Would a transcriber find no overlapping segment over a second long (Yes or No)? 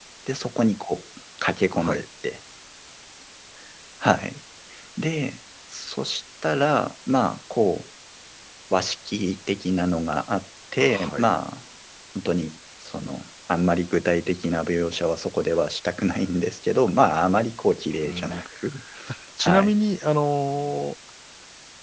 Yes